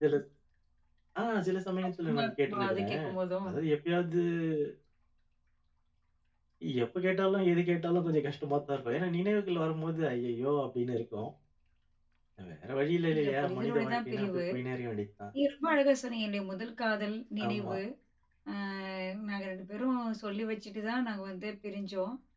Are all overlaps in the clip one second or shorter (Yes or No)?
No